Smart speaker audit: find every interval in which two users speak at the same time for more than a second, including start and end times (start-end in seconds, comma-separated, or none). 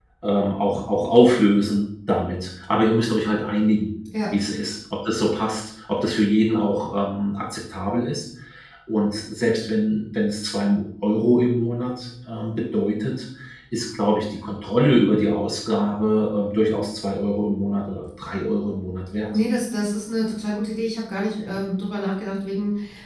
none